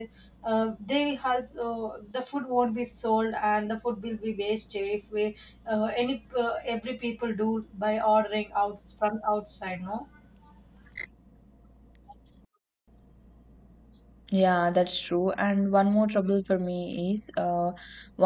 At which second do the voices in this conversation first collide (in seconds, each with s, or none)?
none